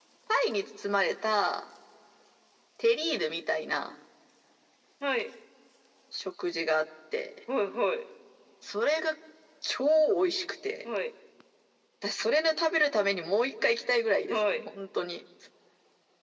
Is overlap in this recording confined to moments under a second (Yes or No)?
Yes